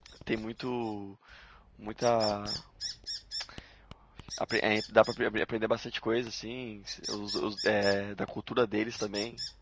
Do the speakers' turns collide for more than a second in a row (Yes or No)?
No